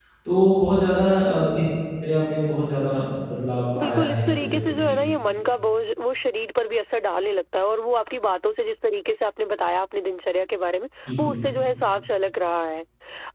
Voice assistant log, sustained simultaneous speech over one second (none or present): present